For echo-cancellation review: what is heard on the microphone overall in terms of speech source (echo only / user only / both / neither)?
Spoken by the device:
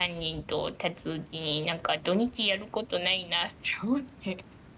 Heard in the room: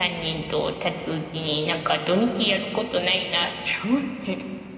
echo only